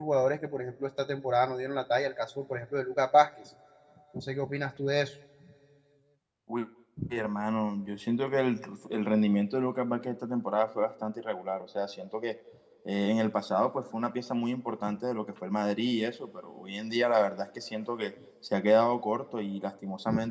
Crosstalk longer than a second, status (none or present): none